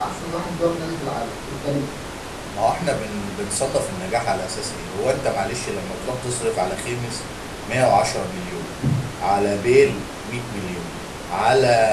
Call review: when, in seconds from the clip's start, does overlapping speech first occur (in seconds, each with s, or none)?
none